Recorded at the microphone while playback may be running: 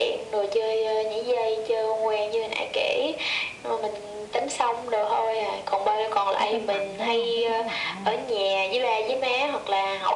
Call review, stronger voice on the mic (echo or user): echo